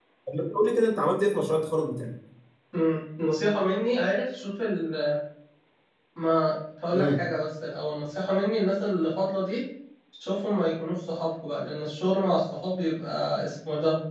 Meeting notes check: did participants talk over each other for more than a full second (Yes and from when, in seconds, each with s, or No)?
No